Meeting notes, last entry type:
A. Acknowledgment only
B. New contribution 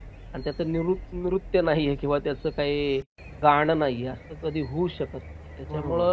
A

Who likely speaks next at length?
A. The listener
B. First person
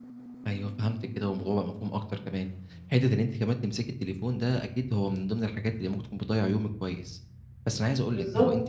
B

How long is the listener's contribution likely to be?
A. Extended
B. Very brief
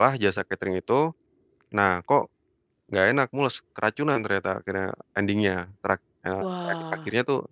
B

